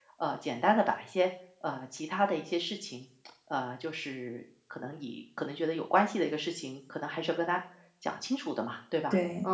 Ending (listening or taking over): taking over